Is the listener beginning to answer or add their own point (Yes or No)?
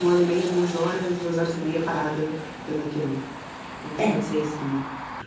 No